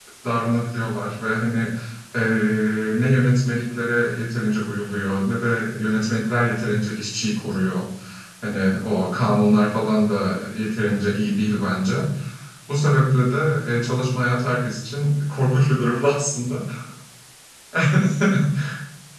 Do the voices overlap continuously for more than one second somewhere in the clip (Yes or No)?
No